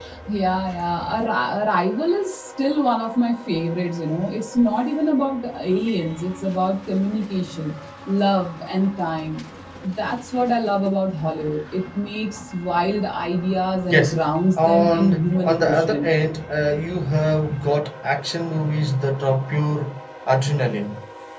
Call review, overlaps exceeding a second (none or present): present